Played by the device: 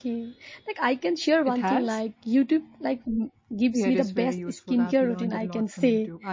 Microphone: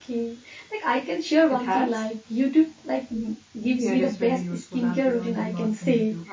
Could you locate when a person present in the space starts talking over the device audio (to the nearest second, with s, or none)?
none